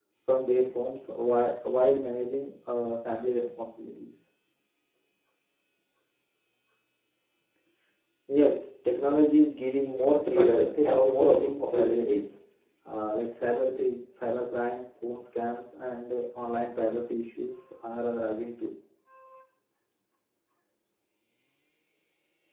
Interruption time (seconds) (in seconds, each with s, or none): 10.3 s